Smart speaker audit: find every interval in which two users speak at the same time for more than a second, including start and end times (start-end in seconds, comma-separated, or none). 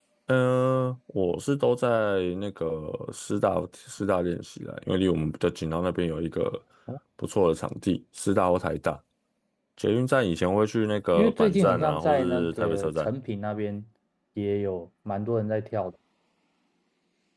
11.1-13.1